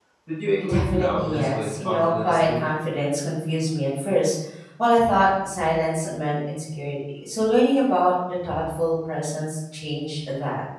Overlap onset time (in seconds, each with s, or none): 0.6 s